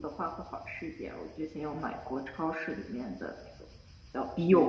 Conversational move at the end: taking over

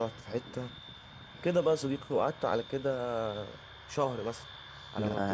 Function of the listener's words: listening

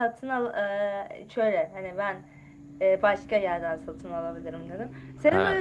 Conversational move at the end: listening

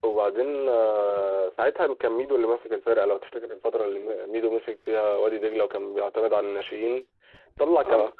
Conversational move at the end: listening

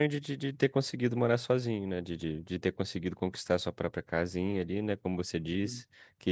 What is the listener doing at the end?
listening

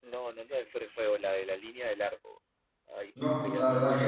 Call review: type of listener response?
taking over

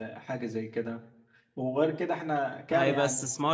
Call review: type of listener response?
taking over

